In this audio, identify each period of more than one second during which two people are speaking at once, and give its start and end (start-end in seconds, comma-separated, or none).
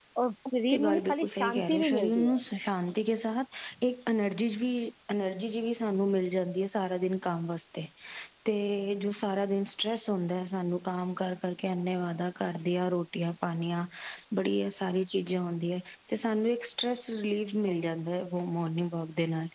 0.7-2.4